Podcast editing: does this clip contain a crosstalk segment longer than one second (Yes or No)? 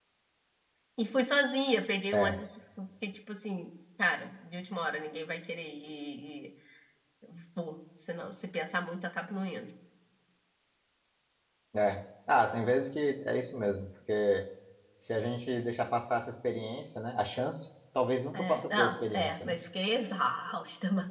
Yes